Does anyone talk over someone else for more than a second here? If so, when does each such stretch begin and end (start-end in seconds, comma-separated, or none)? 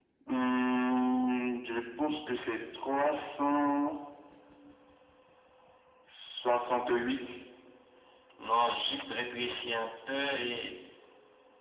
none